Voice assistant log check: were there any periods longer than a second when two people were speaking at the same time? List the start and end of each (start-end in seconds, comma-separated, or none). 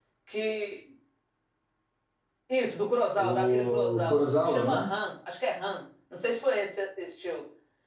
3.1-4.9